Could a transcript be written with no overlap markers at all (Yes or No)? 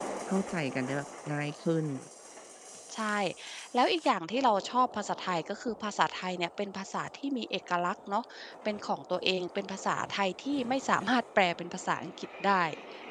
Yes